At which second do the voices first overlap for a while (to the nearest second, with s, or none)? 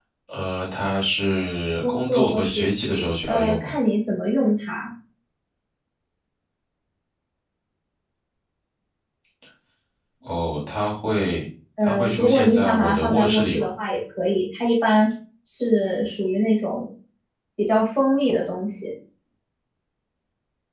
2 s